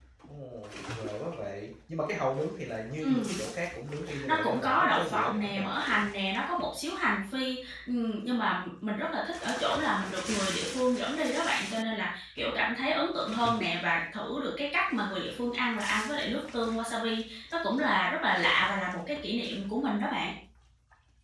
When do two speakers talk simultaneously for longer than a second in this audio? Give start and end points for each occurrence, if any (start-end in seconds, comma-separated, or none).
4.3-5.7